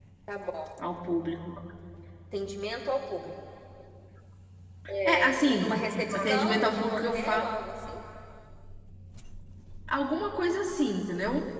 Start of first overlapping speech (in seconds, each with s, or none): 5.0 s